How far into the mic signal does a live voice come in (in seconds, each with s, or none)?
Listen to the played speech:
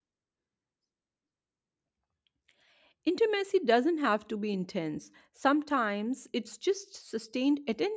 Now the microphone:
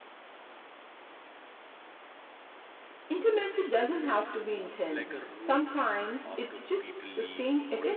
4.9 s